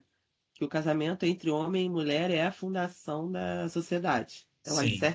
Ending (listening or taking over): listening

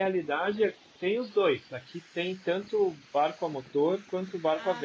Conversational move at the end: listening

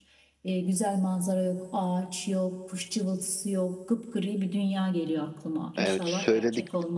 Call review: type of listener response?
taking over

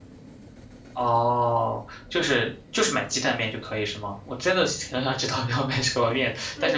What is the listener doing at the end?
taking over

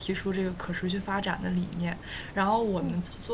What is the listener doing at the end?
listening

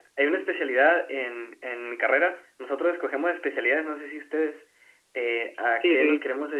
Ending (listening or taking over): listening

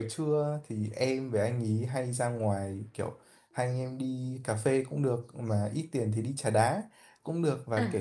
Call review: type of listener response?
listening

